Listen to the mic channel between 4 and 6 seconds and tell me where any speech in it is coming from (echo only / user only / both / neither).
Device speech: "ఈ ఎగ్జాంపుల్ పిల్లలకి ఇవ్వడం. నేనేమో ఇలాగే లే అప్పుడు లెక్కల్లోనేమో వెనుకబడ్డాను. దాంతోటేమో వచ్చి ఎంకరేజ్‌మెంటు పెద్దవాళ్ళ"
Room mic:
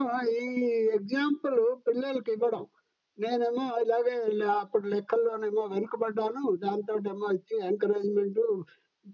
echo only